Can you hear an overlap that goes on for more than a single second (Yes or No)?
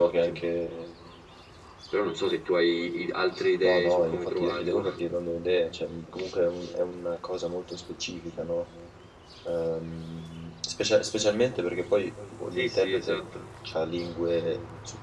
Yes